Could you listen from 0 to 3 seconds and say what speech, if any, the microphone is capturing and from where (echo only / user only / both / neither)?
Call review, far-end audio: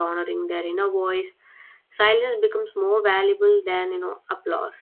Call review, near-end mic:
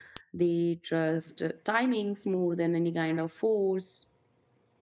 user only